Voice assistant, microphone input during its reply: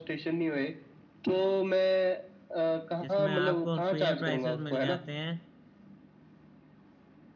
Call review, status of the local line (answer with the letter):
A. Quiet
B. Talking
B